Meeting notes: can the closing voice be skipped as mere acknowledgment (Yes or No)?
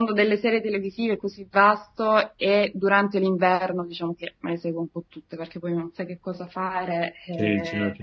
No